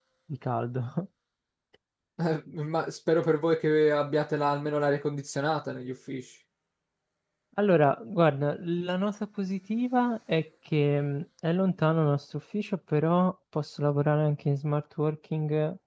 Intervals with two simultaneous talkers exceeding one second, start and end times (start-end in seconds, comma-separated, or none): none